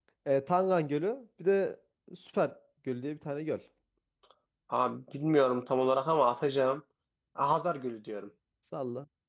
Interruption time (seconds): none

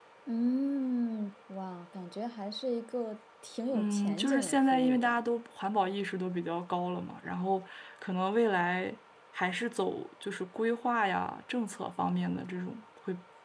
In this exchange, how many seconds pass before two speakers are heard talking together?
4 s

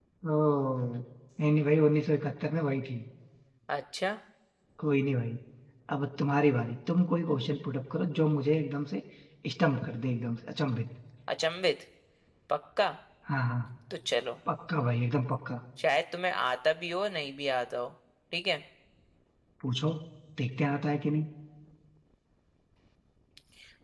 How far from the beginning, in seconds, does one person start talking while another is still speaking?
none

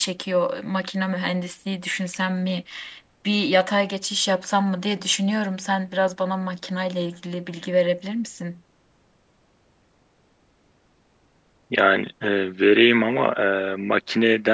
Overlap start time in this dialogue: none

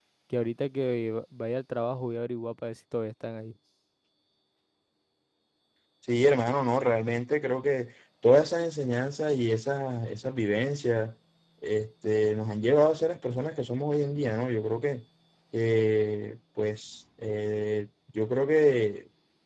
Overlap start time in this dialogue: none

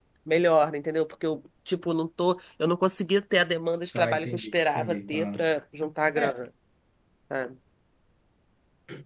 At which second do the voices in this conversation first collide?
4 s

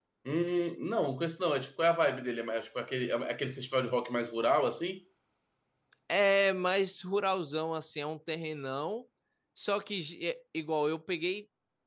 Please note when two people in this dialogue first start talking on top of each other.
none

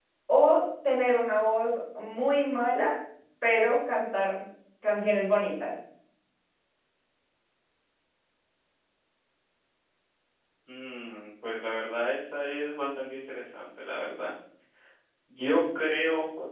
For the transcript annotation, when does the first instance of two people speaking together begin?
none

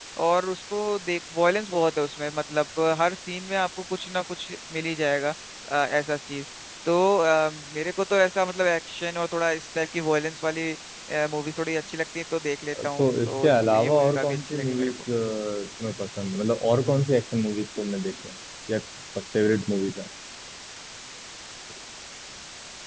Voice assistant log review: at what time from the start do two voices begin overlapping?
13 s

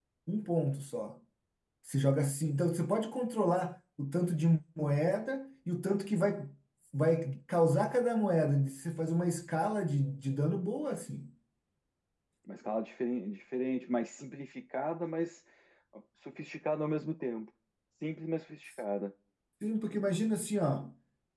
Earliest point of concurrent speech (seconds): none

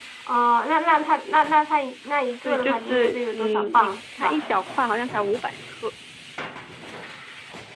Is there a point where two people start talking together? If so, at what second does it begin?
2 s

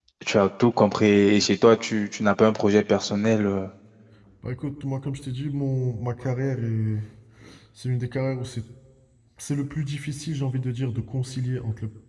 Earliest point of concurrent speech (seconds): none

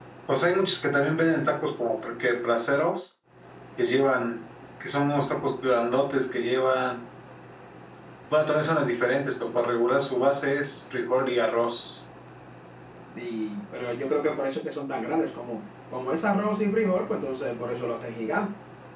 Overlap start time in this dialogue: none

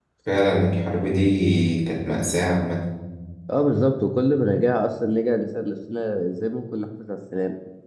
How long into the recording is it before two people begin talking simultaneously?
none

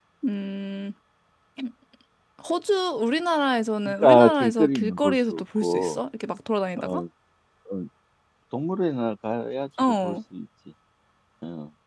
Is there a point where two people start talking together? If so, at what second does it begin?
4 s

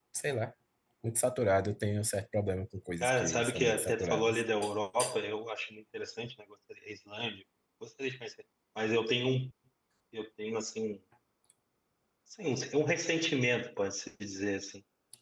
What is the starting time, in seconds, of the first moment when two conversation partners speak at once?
3 s

